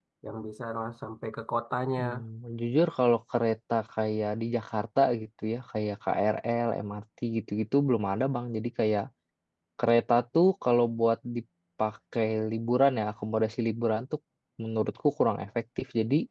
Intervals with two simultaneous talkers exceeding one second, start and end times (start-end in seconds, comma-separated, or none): none